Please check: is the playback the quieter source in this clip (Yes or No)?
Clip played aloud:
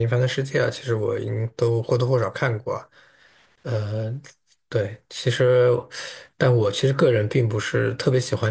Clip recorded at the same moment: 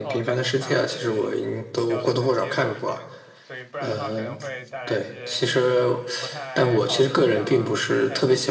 No